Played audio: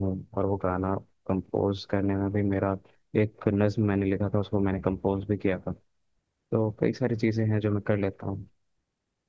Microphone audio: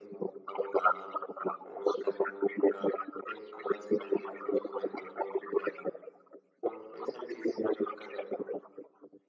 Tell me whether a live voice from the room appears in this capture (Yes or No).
No